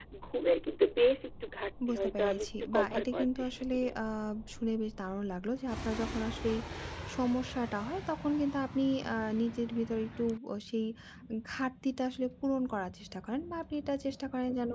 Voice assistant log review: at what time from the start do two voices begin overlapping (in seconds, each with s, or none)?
1.8 s